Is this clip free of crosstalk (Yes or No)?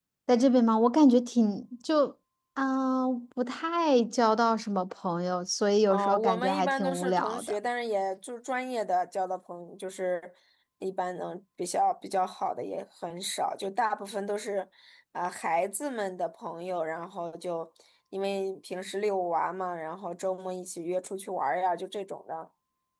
No